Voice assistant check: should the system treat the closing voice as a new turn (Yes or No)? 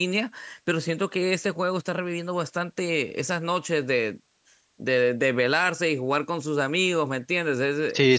Yes